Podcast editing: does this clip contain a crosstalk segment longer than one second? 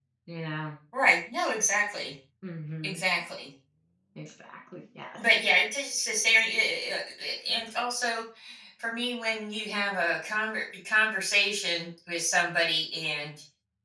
No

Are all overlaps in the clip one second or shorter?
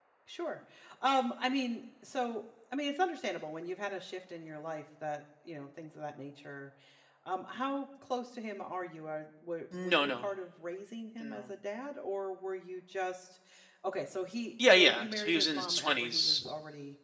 No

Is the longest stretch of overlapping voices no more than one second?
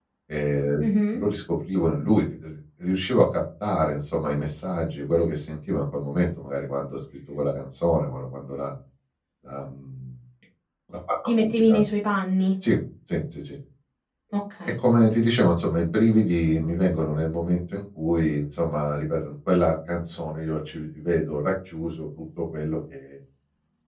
Yes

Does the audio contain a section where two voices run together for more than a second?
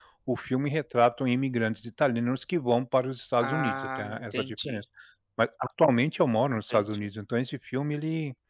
Yes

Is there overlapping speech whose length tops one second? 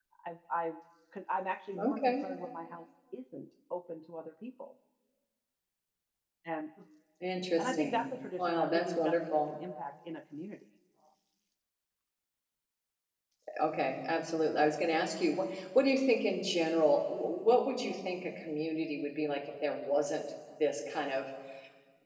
Yes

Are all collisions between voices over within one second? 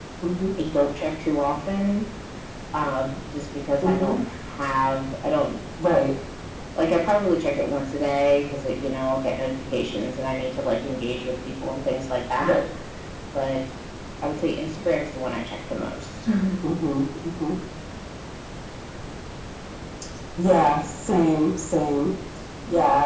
Yes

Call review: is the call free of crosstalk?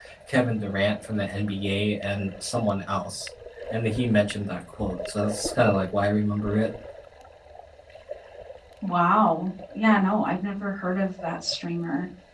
Yes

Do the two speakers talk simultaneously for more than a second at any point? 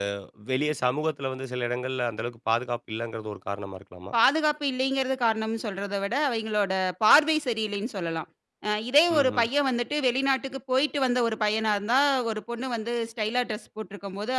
No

